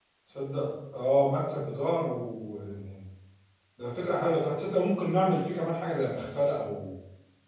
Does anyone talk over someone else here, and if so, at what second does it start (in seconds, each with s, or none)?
none